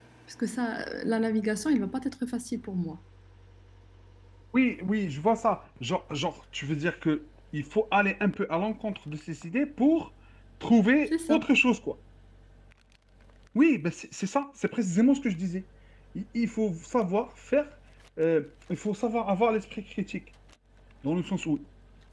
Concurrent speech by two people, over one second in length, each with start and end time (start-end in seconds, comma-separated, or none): none